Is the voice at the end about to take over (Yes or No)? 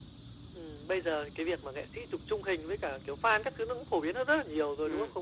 No